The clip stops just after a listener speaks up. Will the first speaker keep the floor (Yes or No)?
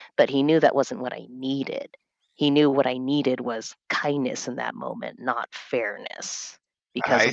No